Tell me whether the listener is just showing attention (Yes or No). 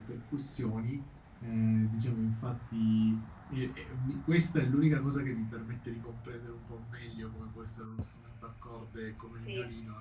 Yes